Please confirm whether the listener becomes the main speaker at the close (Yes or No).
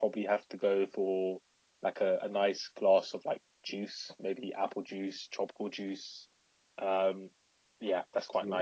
No